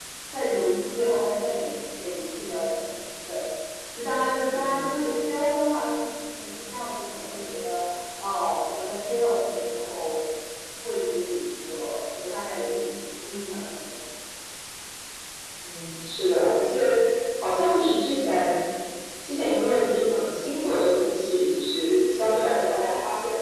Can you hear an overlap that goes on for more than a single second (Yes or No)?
No